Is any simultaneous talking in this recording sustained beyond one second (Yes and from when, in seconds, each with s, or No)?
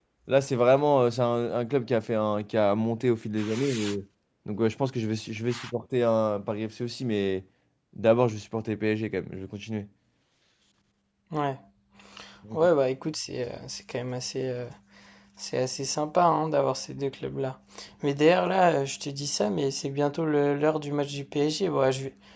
No